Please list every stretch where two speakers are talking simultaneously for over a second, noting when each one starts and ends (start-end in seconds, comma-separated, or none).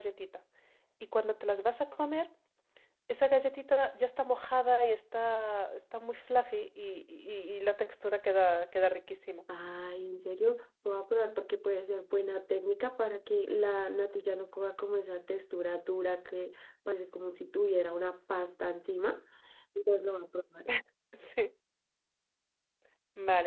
none